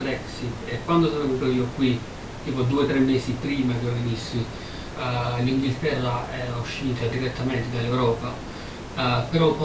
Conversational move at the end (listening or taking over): listening